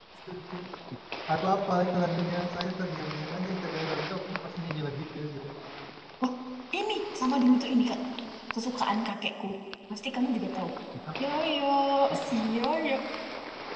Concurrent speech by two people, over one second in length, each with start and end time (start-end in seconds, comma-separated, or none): none